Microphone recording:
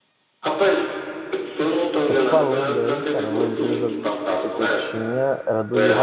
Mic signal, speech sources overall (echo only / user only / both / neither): both